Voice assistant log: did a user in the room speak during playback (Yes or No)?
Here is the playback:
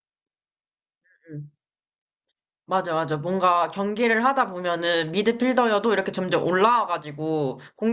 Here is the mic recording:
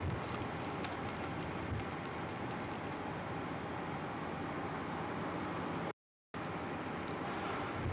No